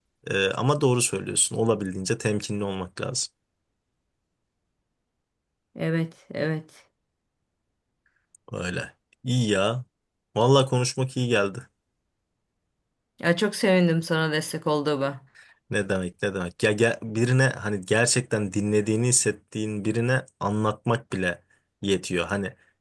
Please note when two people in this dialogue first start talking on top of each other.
none

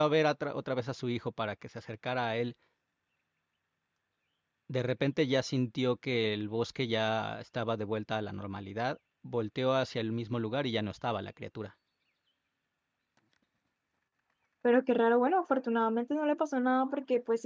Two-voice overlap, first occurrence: none

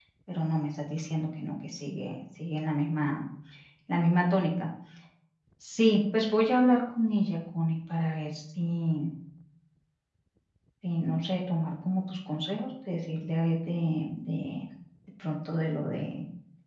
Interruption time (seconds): none

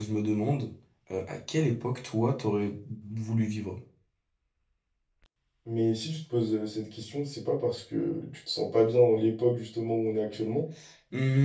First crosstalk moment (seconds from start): none

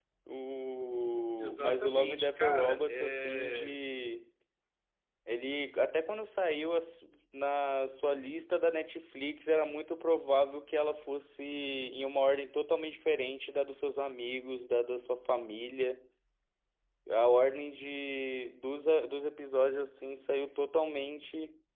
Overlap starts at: 1.4 s

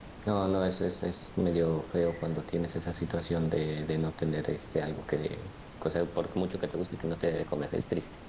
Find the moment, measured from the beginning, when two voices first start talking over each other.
none

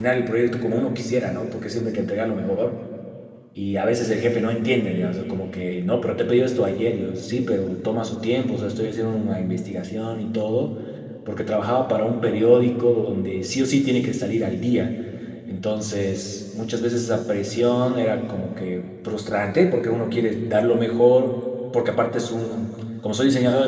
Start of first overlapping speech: none

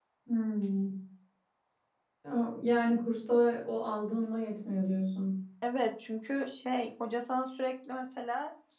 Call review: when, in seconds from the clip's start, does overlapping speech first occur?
none

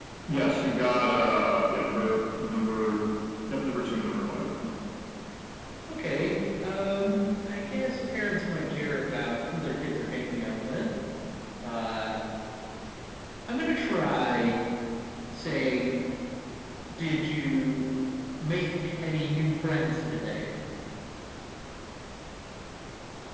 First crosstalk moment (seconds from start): none

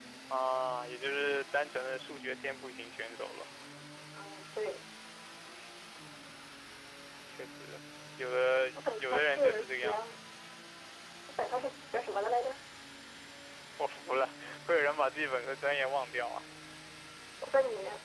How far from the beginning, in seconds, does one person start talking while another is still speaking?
8.7 s

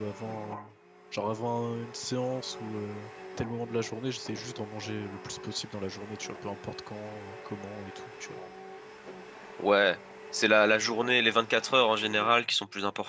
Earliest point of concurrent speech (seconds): none

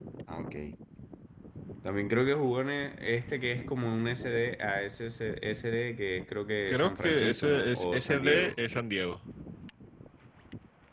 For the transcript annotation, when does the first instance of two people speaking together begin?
6.7 s

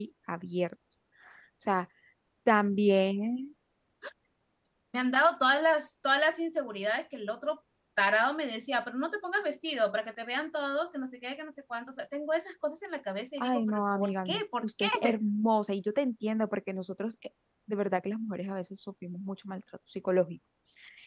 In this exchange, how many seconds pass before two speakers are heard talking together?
13.4 s

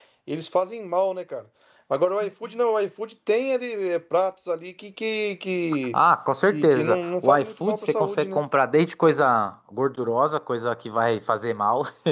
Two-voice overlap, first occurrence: 6.5 s

